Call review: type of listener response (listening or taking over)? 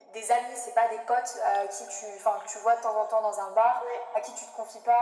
listening